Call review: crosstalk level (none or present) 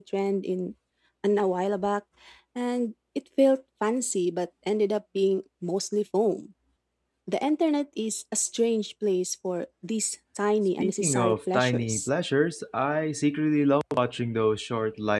present